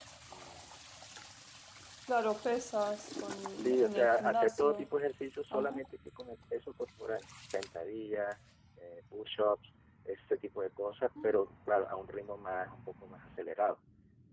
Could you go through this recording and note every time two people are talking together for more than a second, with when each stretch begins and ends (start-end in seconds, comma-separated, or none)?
3.5-4.8